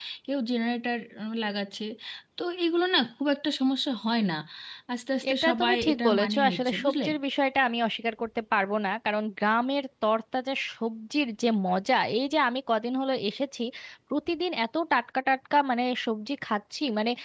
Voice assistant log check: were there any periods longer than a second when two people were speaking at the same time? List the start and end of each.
5.3-7.1

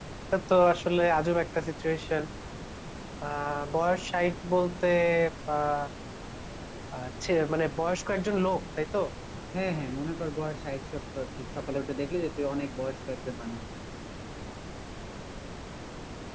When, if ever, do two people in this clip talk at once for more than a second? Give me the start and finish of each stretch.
none

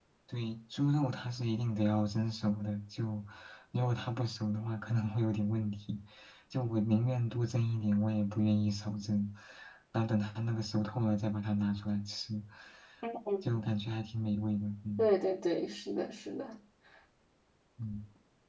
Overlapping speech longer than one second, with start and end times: none

